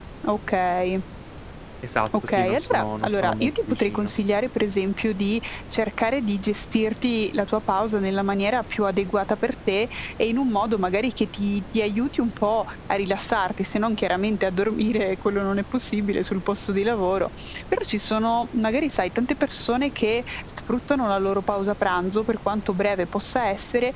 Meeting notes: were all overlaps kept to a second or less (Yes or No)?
No